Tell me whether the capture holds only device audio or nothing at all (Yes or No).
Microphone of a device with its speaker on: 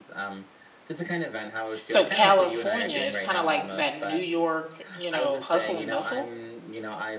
No